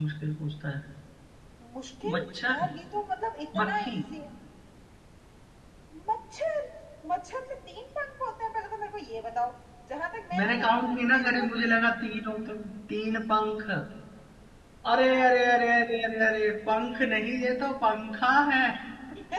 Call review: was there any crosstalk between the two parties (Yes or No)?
Yes